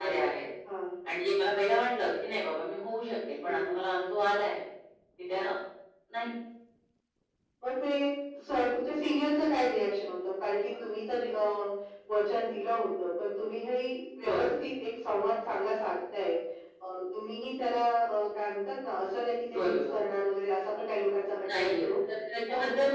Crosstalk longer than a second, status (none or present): none